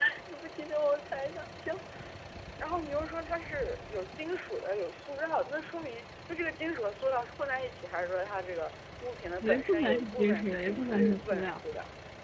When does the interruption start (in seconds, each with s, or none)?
9.4 s